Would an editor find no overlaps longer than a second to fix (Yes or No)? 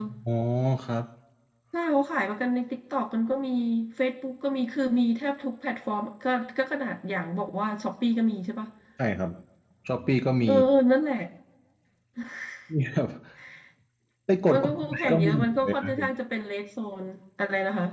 No